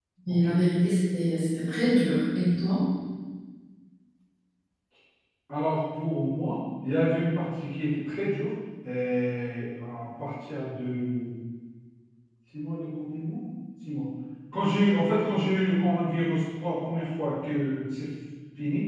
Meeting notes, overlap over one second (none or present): none